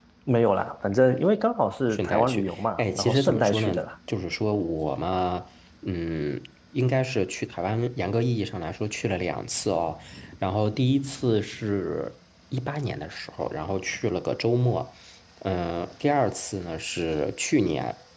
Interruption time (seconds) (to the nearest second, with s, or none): 2 s